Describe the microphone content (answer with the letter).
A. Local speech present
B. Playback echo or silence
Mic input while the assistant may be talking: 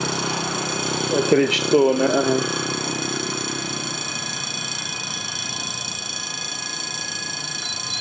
A